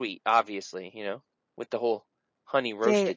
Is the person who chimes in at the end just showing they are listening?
No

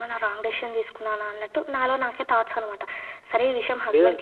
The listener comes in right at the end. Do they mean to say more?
Yes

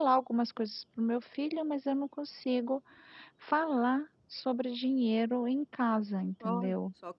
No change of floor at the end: No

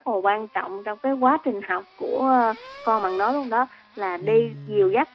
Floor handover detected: No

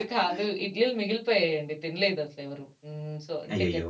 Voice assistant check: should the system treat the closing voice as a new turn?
No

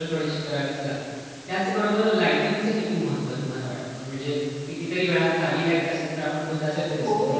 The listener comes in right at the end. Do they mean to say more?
Yes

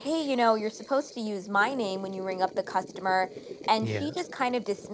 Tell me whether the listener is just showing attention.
Yes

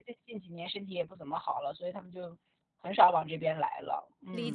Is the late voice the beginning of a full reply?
Yes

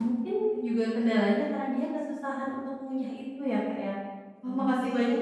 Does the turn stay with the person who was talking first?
Yes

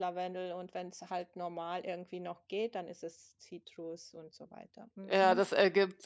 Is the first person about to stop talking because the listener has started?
Yes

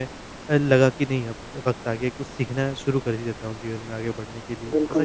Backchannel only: No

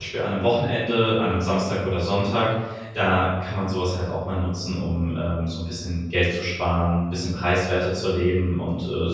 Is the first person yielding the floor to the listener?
No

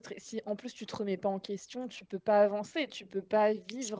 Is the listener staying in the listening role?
Yes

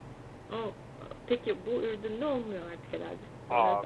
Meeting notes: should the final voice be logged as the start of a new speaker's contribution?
Yes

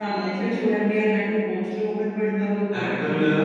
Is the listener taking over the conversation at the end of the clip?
Yes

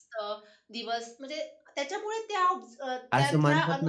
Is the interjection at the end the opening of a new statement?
Yes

